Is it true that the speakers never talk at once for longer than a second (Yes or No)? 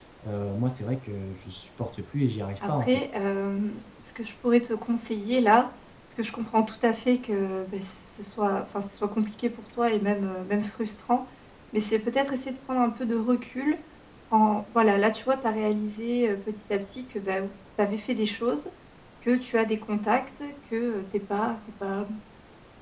Yes